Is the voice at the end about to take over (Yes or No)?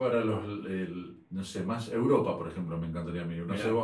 No